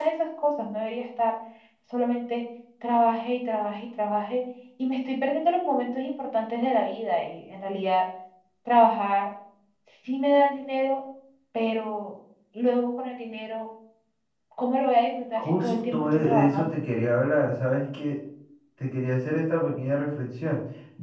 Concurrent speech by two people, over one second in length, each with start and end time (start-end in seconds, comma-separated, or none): 15.3-16.8